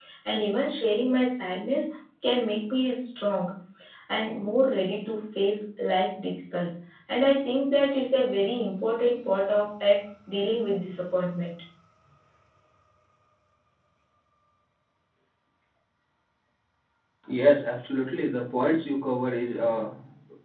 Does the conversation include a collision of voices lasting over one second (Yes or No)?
No